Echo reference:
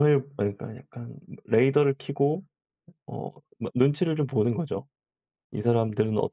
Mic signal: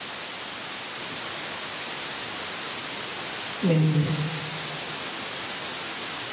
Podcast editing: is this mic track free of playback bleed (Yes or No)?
Yes